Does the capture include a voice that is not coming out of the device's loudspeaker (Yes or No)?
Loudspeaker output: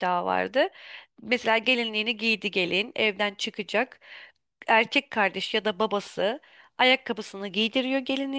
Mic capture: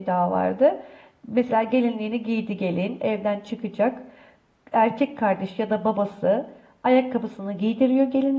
No